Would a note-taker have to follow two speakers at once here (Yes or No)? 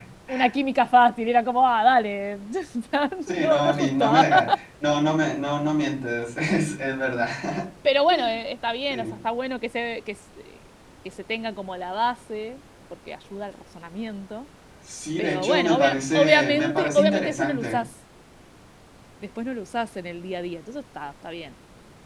Yes